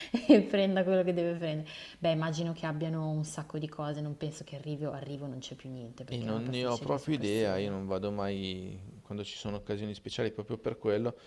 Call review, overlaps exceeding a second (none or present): present